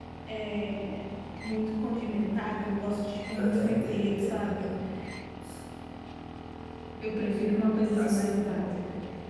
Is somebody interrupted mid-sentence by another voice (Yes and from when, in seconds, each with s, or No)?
Yes, from 3.4 s